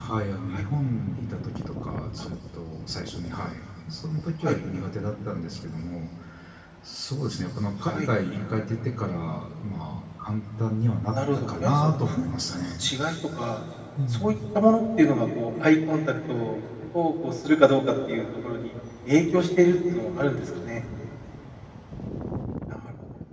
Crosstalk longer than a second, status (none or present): present